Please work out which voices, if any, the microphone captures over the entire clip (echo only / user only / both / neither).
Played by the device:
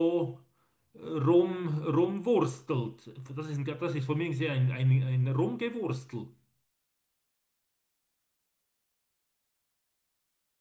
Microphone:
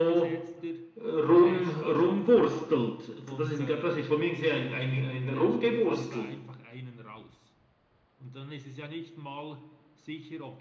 both